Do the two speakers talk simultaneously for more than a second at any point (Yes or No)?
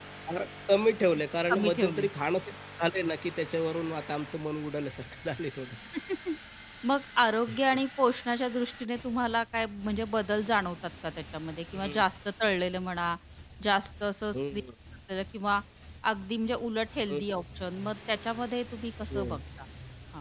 No